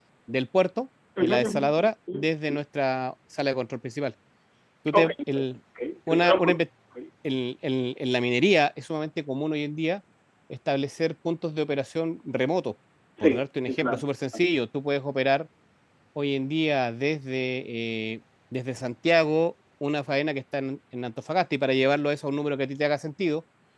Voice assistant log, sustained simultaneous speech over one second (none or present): present